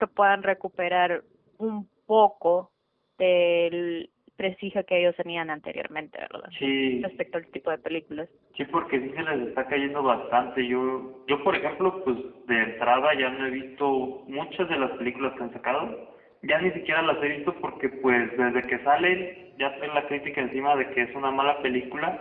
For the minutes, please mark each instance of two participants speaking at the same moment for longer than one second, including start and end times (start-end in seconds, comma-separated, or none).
none